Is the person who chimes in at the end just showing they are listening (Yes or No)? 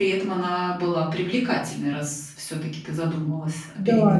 No